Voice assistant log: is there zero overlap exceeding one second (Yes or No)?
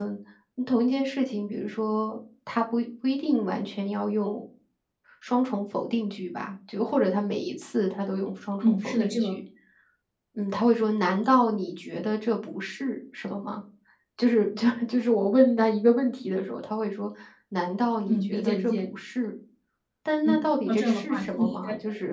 No